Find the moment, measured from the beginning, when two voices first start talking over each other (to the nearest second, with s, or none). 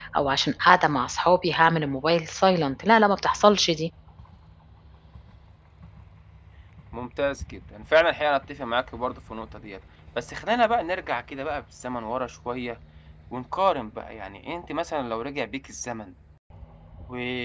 none